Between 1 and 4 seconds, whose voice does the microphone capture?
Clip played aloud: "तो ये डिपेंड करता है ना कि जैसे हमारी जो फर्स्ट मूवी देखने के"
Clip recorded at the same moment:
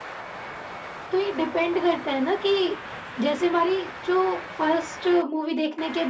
echo only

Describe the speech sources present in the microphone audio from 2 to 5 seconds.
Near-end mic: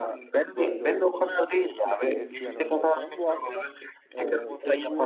both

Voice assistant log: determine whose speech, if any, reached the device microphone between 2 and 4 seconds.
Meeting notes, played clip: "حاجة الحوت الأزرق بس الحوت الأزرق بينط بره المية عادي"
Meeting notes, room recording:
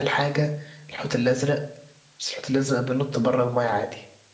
echo only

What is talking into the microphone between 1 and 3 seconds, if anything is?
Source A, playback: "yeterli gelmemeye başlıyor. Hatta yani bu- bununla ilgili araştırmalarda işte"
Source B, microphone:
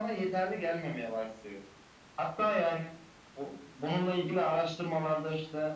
echo only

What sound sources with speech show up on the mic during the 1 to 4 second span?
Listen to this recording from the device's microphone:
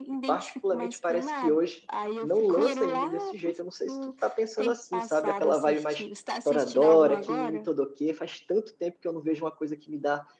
both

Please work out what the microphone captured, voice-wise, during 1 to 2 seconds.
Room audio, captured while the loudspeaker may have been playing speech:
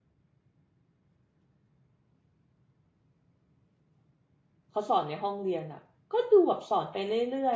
neither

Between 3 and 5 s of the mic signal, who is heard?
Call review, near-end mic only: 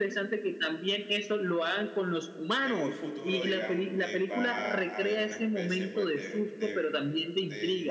both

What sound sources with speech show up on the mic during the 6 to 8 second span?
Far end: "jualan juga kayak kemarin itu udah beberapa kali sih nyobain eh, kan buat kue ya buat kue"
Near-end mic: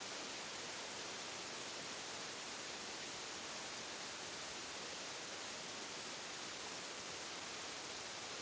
neither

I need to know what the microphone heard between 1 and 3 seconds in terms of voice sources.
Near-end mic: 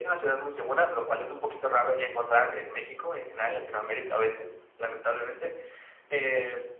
echo only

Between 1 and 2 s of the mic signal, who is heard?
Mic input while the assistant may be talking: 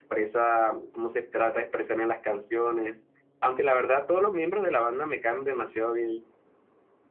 user only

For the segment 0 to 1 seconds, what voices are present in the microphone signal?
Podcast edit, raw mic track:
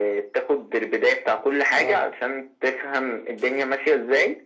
echo only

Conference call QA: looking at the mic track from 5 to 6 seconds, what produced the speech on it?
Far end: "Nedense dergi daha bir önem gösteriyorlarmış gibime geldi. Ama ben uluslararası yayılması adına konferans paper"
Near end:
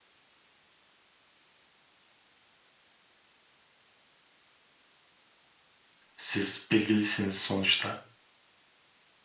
neither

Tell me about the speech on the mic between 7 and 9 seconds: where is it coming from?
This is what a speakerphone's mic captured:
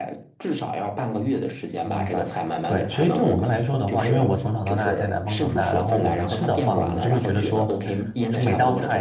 both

